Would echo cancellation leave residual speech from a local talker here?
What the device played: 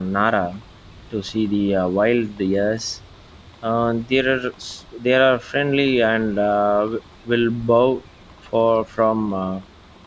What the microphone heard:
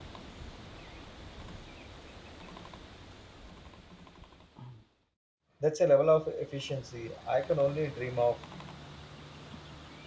Yes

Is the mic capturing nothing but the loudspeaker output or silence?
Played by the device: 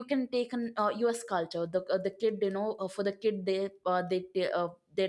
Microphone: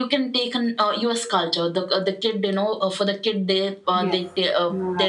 No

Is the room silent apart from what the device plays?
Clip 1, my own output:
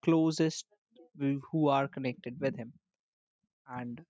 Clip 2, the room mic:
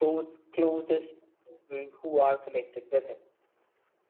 Yes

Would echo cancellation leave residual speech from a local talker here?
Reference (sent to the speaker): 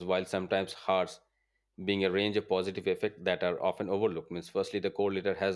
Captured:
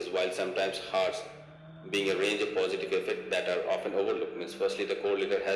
No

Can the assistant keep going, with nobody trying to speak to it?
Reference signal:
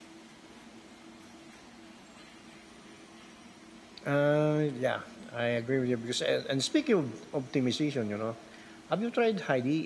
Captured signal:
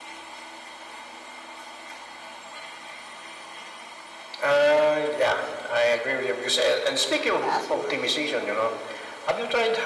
No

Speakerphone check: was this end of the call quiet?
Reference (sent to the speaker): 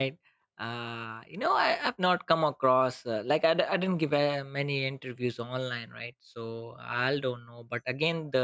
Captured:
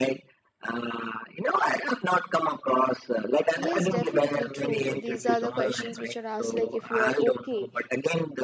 No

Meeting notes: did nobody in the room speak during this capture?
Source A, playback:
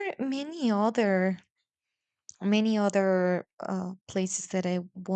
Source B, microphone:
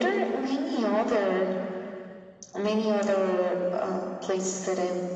Yes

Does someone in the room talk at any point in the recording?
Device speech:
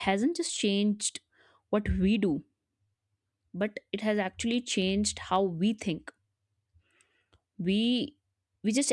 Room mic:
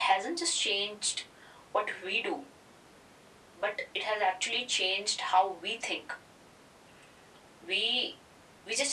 No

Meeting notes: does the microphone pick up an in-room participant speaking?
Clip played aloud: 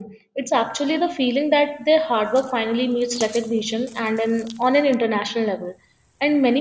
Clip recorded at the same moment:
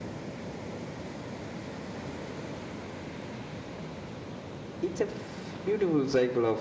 Yes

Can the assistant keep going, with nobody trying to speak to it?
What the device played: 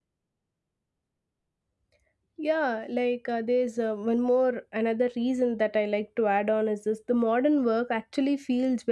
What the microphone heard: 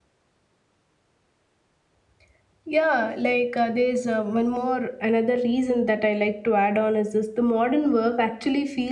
Yes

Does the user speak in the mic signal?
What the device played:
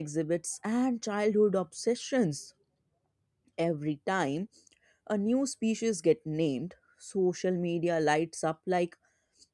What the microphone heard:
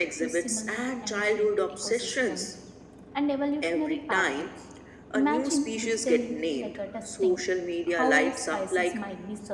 Yes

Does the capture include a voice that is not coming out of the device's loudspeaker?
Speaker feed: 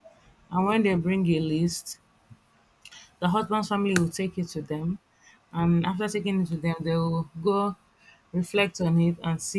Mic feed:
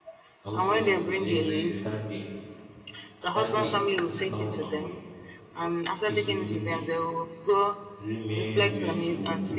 Yes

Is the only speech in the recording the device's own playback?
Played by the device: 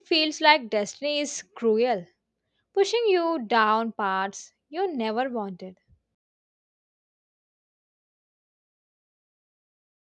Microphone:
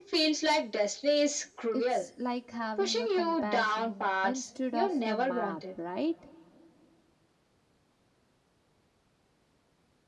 No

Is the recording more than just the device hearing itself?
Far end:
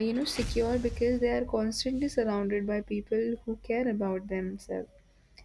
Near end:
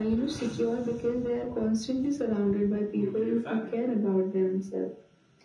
Yes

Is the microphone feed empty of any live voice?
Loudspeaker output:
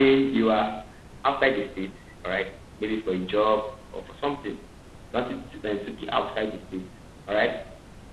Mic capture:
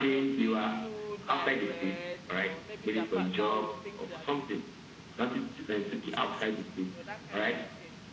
No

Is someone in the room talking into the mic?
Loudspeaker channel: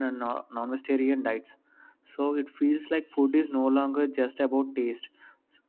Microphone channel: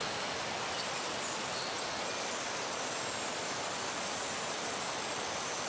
No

